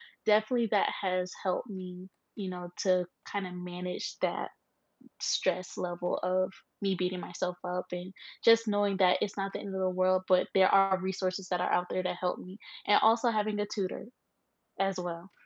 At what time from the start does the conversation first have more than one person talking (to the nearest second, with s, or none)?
none